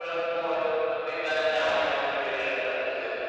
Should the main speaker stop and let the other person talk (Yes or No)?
No